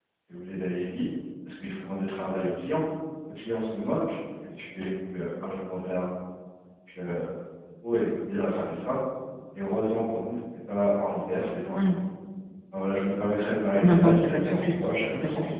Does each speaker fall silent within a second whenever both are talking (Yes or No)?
No